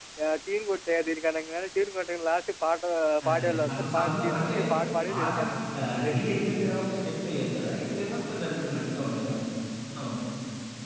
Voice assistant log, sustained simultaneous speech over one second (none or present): present